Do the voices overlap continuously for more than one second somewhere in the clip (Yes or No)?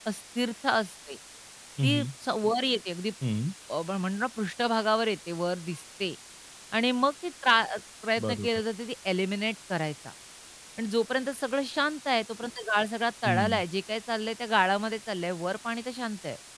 No